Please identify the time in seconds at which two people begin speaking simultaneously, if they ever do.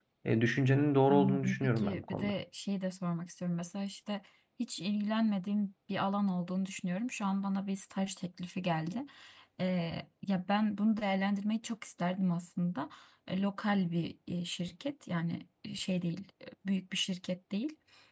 1.1 s

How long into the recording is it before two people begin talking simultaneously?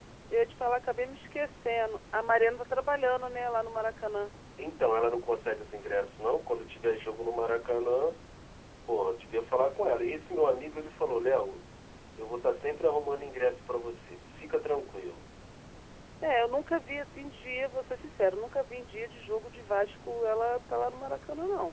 none

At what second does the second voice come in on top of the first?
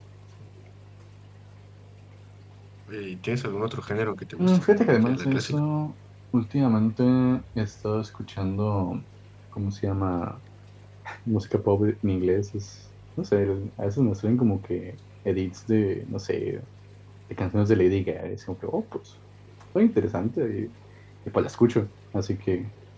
4.4 s

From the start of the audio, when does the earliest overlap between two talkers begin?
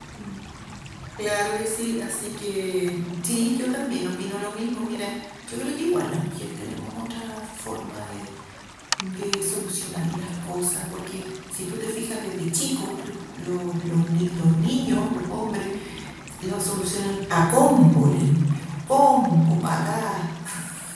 none

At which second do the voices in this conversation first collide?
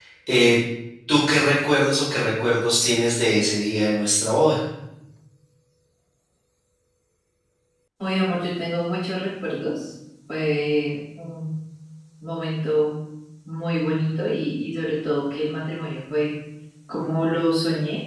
none

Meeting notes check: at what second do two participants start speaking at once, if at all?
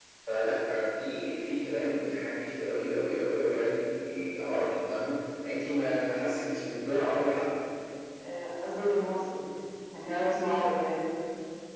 none

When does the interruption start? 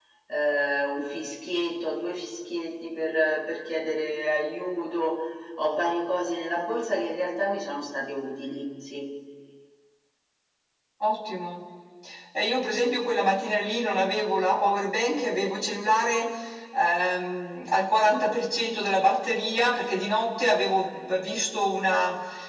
none

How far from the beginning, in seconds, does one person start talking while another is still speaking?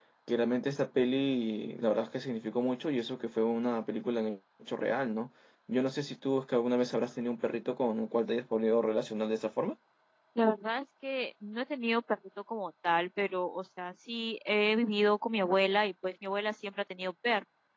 none

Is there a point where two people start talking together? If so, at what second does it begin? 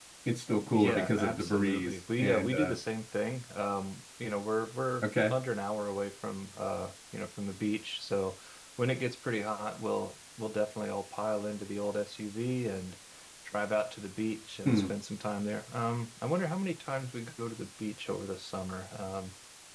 0.7 s

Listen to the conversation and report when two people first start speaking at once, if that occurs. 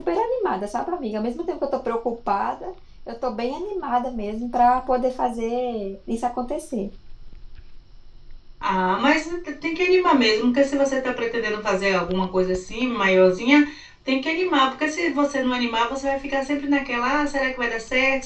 none

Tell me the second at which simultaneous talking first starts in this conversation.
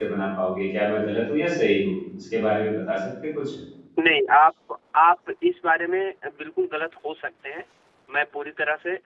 none

